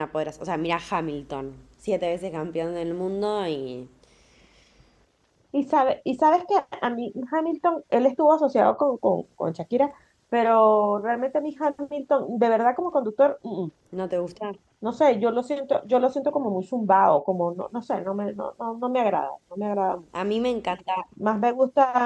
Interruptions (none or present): none